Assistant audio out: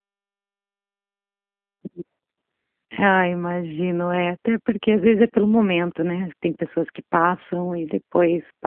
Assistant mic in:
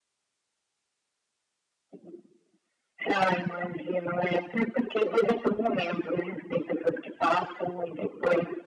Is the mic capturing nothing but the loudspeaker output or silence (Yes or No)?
Yes